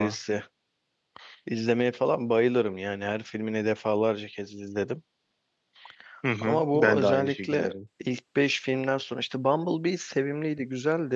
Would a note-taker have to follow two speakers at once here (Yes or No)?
Yes